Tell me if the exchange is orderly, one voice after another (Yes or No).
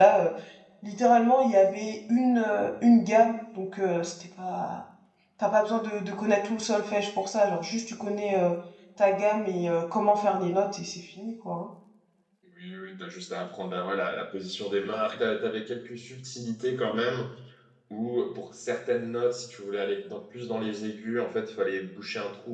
Yes